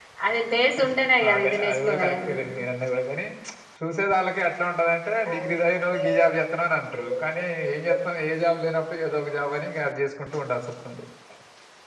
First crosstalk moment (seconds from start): 1.3 s

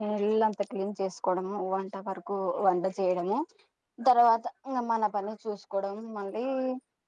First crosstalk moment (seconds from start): none

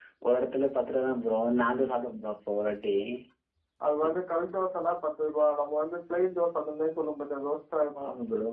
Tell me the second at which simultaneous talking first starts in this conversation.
none

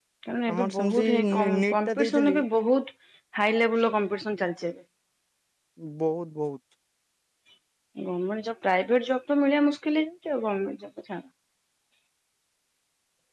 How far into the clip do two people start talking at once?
0.5 s

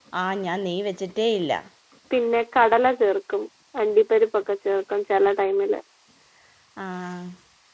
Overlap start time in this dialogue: none

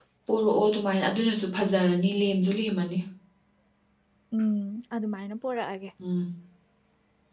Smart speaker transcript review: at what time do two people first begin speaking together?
none

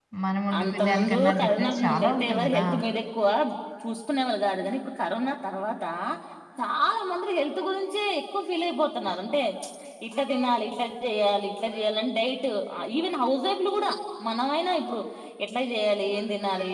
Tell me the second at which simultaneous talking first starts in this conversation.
0.6 s

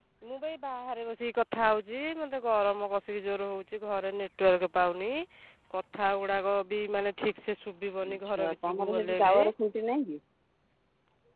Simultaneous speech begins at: 8.0 s

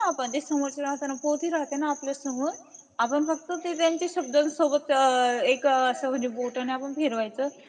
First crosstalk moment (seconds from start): none

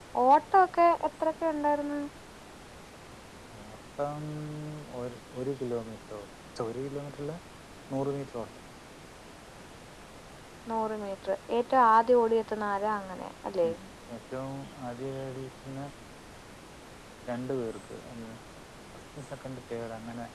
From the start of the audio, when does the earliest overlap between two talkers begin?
none

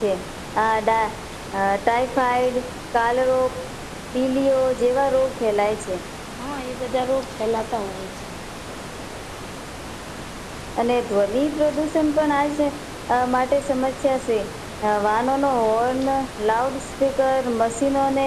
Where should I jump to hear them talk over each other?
none

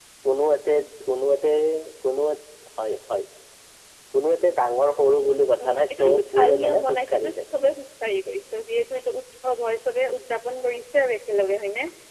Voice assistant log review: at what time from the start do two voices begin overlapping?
5.6 s

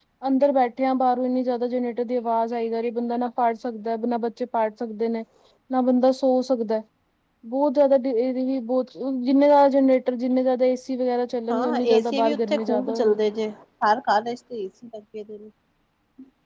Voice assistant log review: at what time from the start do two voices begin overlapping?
11.5 s

